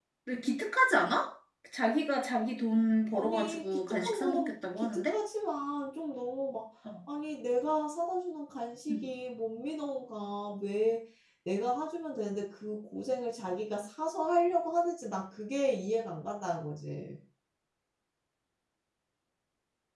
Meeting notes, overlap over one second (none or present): present